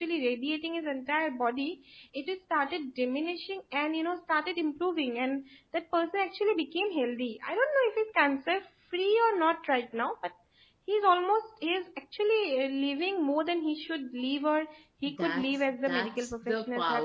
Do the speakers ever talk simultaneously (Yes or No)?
Yes